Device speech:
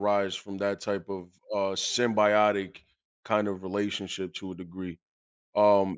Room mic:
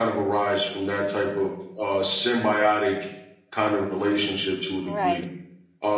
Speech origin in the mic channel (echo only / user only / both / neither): both